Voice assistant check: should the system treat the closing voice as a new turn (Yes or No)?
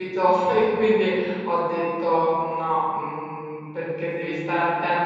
No